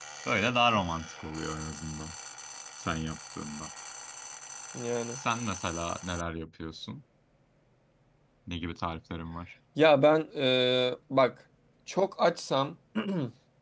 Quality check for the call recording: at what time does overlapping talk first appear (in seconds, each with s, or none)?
none